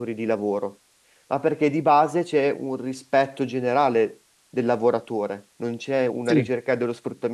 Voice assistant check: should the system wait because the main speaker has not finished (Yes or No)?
Yes